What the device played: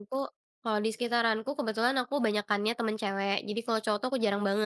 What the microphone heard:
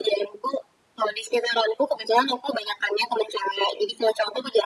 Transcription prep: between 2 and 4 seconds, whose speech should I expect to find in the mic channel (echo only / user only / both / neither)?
echo only